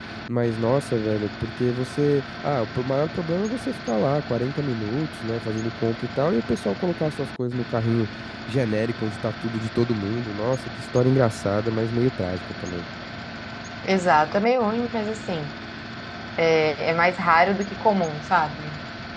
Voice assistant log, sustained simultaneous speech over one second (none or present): none